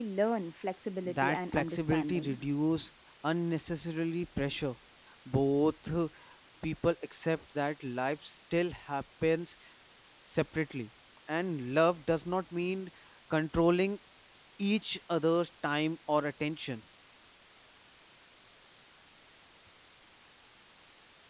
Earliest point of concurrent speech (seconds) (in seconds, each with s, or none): 1.1 s